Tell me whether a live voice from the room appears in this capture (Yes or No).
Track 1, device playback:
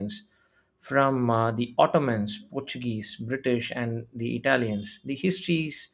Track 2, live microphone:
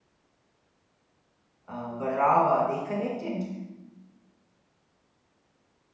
Yes